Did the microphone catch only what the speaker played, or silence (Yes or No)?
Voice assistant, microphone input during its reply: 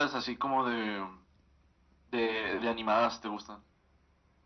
Yes